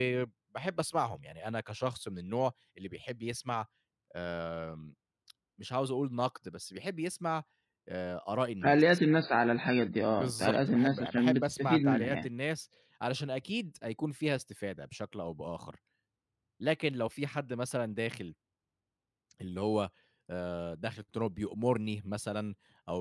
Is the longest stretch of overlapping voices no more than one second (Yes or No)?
No